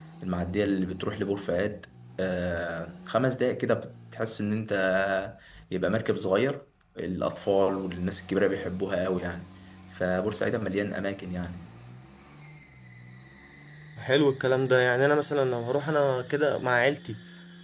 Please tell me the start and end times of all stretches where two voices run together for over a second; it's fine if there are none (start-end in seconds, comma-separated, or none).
none